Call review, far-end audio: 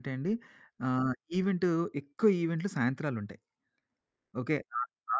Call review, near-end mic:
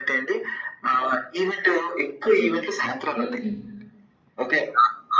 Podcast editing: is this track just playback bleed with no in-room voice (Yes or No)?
No